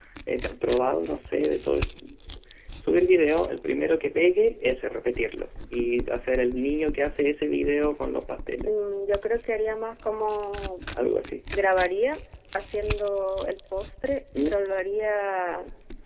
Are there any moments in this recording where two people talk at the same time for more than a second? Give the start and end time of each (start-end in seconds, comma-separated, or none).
none